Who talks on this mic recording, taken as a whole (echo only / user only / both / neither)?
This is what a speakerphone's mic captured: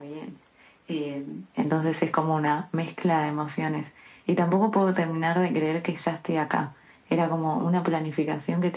echo only